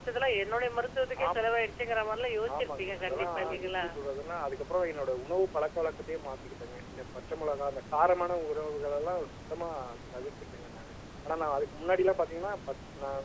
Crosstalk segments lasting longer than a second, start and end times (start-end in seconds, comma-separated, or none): 2.5-3.9